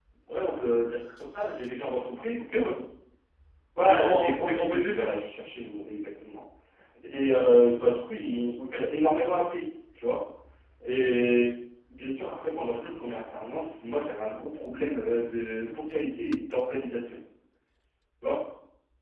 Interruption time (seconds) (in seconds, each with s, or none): 3.9 s